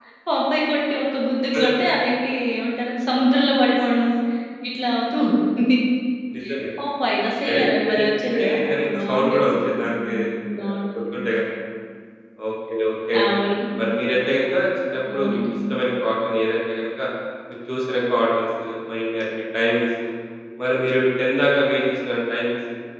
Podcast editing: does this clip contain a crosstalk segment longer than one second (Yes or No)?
Yes